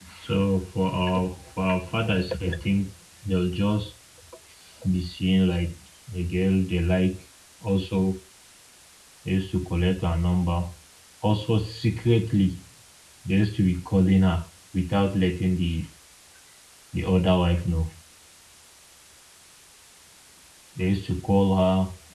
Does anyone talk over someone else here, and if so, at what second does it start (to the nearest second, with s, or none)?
none